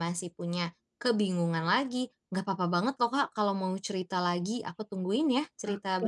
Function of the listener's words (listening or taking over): taking over